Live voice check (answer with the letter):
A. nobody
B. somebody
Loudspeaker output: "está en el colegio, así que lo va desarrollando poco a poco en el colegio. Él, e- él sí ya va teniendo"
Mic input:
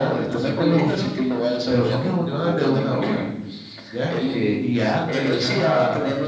B